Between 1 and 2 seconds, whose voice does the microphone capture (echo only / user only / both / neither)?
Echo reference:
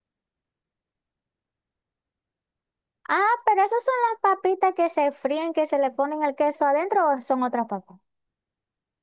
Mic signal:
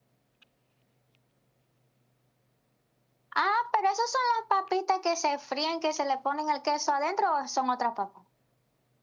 neither